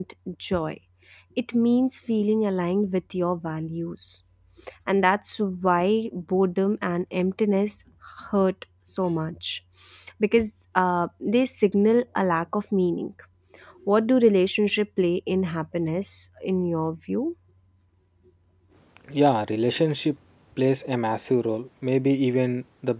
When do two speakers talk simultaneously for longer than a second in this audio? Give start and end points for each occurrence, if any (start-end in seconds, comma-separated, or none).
none